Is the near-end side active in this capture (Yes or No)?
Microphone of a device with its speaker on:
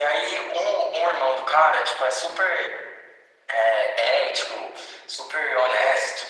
No